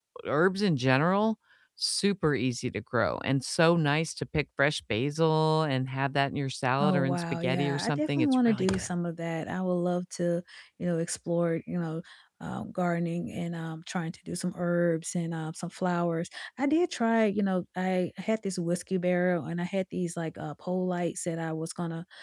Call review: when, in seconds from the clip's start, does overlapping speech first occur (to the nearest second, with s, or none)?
7 s